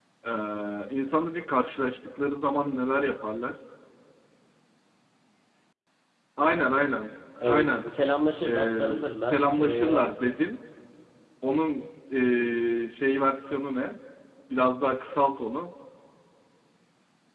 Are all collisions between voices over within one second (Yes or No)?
No